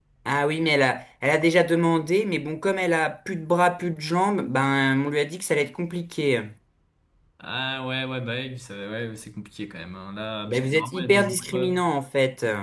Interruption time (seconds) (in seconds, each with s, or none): 10.5 s